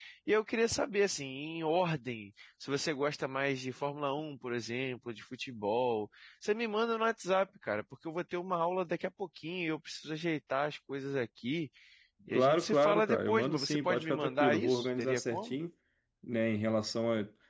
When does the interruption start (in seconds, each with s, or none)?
12.3 s